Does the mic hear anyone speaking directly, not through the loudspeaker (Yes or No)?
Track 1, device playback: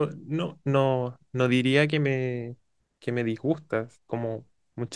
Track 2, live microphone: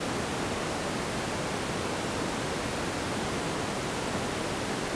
No